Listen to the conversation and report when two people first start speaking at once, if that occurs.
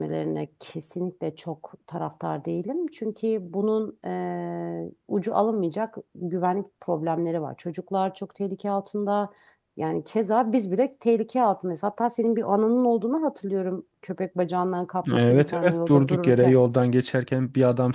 15.0 s

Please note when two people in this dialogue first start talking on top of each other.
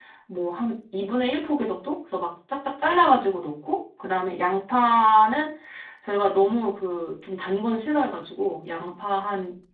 none

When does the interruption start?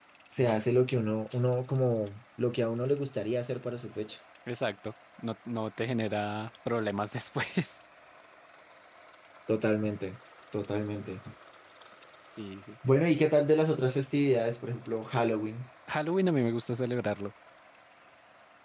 none

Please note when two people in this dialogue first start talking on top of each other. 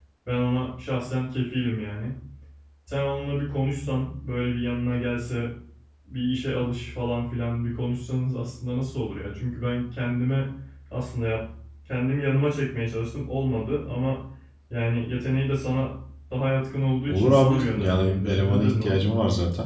17.1 s

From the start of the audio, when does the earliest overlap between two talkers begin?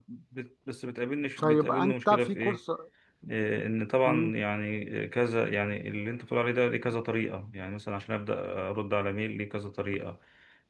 1.4 s

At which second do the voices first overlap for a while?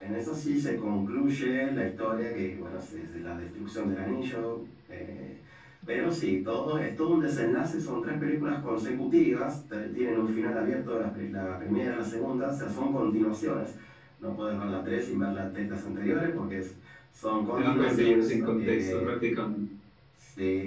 17.6 s

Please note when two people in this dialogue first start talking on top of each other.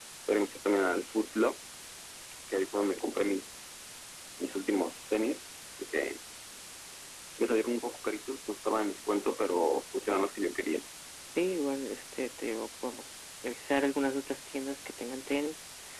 none

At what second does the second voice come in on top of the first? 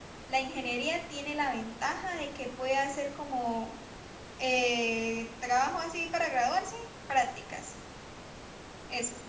none

